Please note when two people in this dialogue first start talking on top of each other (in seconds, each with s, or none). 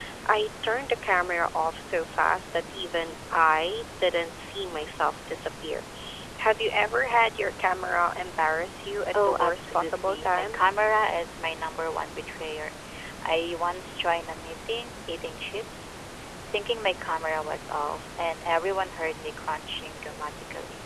9.1 s